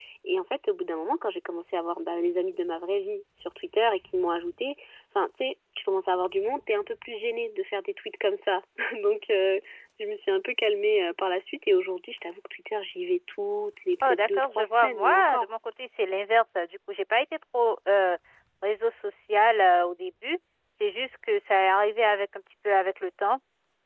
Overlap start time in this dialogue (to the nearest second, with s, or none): 14 s